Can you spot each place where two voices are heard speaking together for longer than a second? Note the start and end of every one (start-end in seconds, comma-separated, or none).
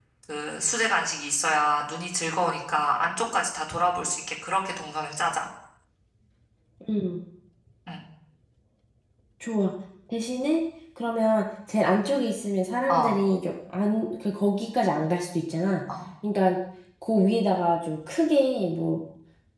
none